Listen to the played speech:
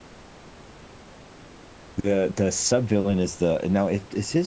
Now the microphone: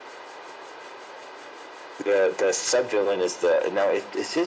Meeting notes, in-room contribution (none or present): none